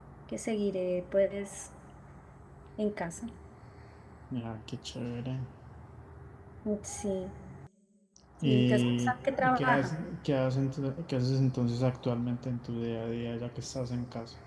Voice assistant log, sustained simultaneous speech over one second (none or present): present